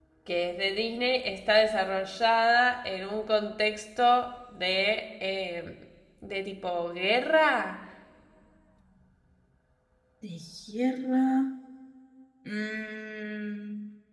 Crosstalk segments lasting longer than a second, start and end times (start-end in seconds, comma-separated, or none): none